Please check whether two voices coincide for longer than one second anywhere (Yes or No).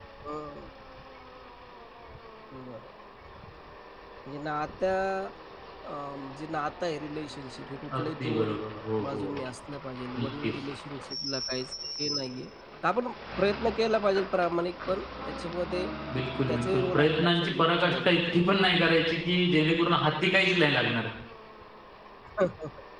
Yes